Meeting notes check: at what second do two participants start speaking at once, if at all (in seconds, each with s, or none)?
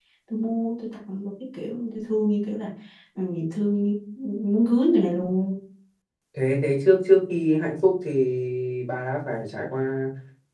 none